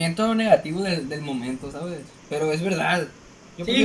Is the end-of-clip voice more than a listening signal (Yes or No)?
Yes